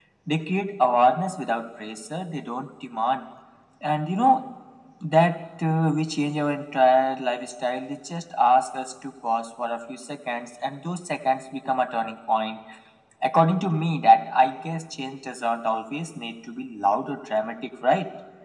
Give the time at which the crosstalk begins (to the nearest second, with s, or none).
none